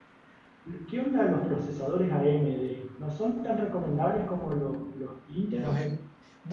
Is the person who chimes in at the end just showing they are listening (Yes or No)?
No